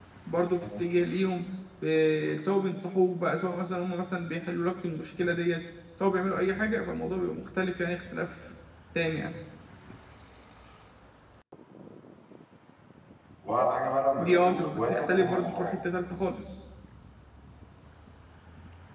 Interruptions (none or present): present